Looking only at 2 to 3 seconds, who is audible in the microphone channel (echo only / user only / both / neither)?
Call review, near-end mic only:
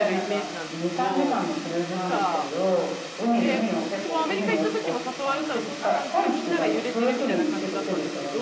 both